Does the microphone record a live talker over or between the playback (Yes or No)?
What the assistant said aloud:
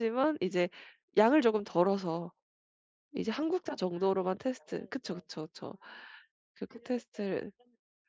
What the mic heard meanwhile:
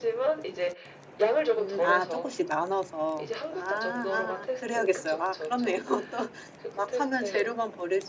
Yes